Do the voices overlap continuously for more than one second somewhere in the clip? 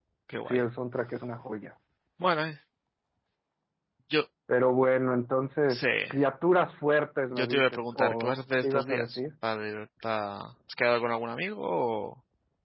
Yes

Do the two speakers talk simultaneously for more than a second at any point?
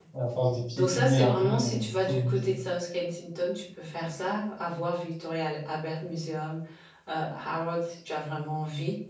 Yes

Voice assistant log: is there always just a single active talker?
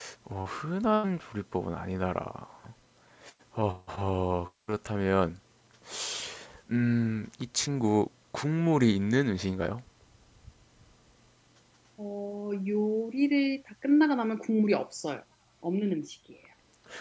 Yes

